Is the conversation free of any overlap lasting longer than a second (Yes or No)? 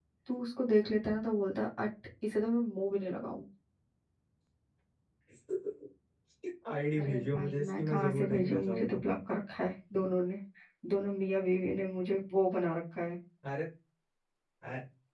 No